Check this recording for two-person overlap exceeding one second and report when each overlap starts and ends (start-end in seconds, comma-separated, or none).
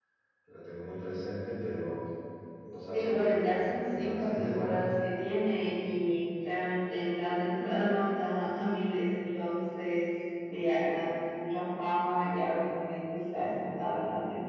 2.9-4.8